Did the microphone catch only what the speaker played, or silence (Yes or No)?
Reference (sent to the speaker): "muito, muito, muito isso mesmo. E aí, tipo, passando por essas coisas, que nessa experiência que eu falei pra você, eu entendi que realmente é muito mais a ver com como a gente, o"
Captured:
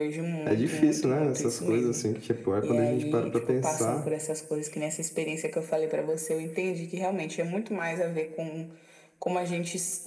No